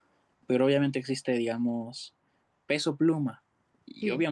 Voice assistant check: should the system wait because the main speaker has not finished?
Yes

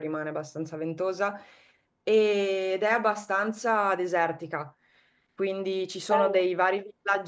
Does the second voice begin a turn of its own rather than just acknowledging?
No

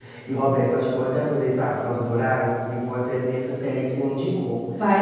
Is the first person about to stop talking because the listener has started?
Yes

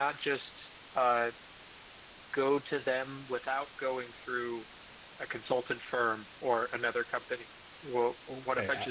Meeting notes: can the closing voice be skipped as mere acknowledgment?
No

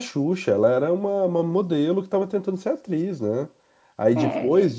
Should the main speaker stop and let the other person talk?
No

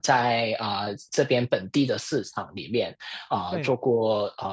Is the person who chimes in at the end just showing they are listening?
Yes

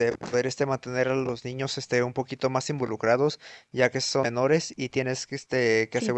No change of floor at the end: Yes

